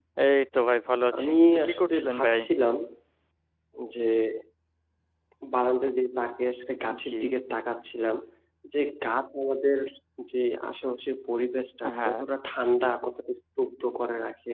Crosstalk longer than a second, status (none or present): present